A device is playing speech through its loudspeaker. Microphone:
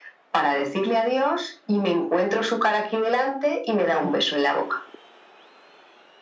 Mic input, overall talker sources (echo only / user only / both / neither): echo only